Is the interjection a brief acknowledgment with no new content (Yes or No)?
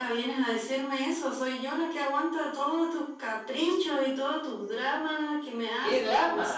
No